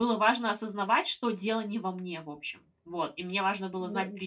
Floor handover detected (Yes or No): No